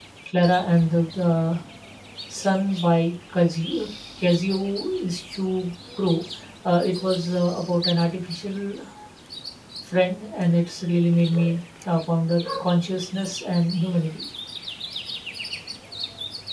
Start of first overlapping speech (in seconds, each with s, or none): none